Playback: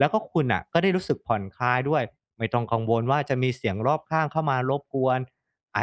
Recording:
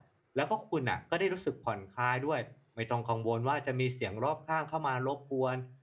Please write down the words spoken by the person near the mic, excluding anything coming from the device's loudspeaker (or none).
none